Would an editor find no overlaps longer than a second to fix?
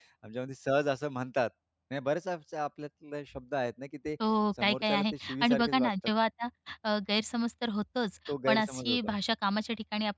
No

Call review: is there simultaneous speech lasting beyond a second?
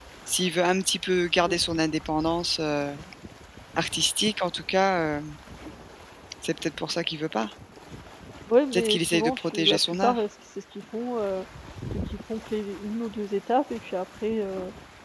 Yes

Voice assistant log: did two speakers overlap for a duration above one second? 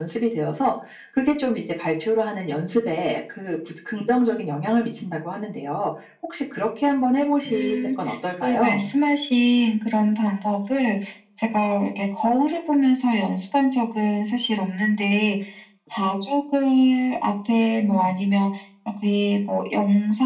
No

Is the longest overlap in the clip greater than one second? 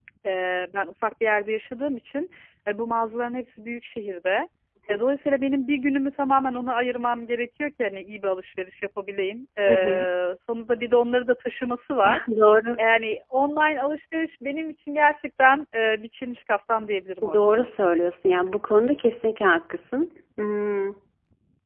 No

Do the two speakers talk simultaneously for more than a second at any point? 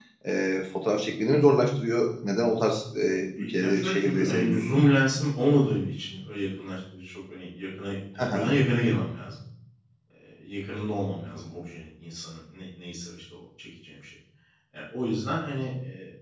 Yes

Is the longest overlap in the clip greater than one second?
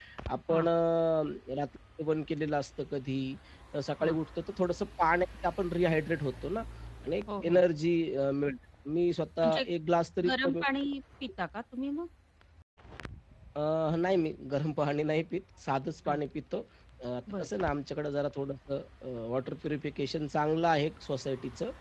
No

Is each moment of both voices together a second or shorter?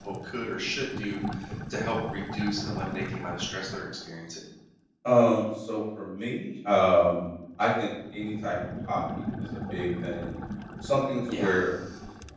Yes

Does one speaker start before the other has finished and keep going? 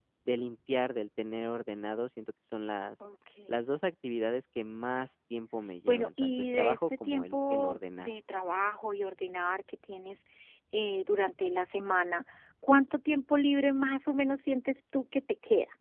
Yes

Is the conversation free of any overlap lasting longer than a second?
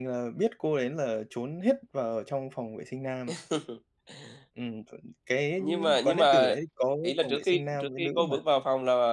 No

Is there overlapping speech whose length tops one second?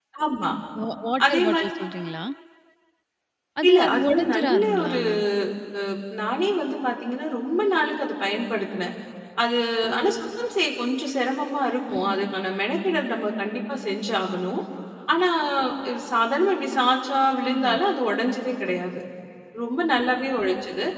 Yes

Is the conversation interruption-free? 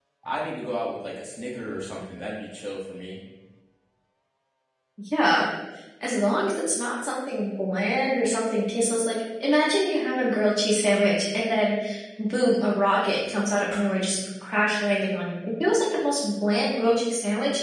Yes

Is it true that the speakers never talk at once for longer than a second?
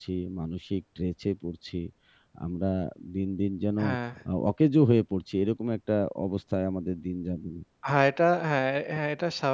Yes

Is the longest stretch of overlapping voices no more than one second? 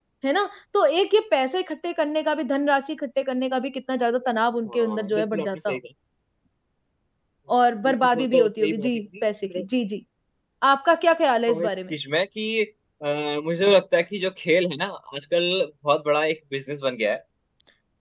No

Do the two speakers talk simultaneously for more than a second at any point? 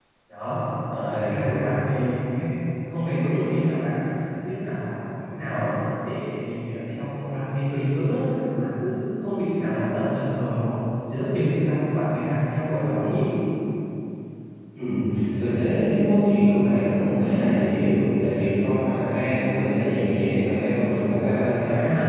No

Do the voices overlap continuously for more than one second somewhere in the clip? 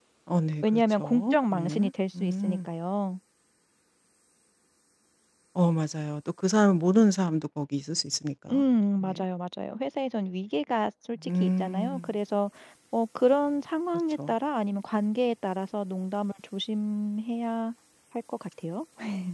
Yes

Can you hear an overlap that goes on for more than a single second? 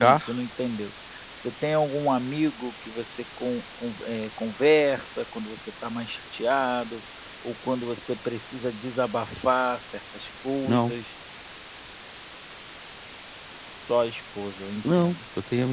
No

